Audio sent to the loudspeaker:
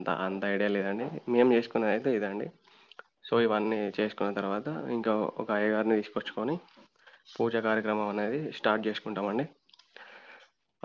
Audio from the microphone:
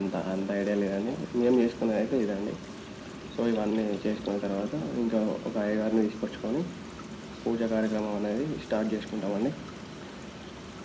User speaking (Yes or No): No